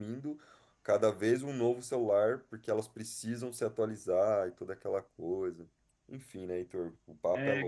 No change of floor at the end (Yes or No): No